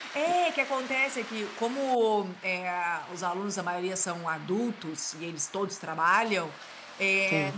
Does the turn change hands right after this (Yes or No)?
No